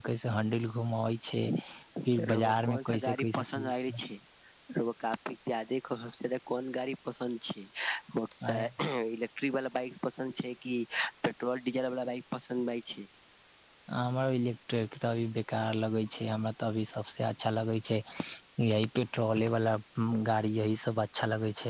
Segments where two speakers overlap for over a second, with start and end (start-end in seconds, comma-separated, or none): 2.3-3.7